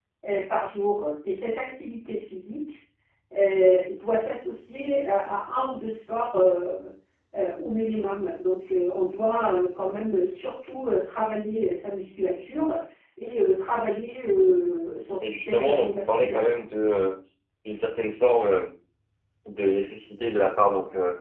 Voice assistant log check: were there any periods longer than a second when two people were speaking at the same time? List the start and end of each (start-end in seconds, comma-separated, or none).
15.2-16.5